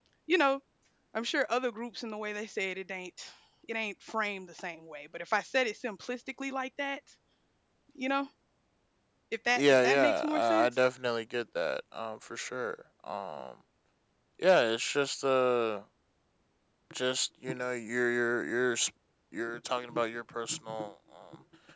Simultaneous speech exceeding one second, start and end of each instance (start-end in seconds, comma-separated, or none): 9.6-10.8